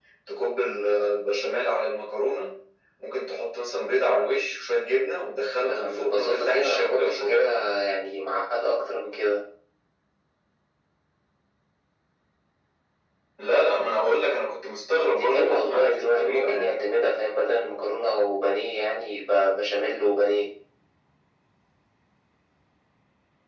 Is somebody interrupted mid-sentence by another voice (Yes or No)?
Yes